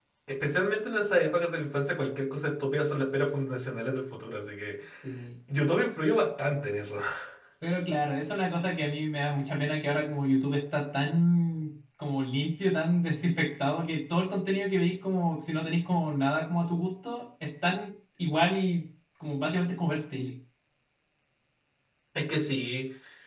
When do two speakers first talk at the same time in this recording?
none

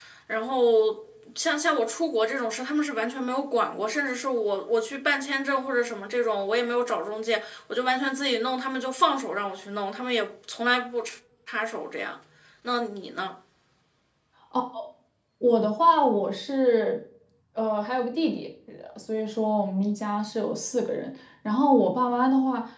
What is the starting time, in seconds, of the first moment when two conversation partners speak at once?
none

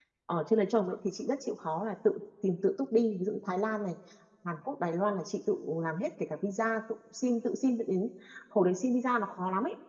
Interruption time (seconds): none

